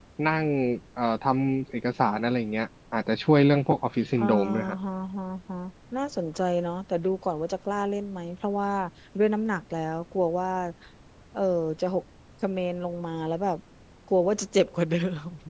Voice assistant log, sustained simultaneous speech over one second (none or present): none